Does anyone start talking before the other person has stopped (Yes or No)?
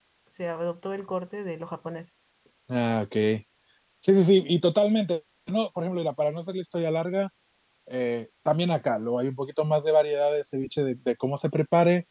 No